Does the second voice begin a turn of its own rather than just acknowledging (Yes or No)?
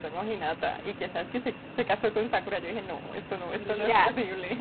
Yes